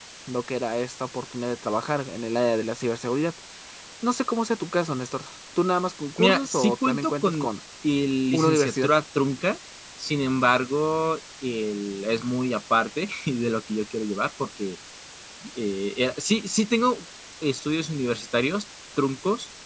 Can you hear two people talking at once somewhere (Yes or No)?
Yes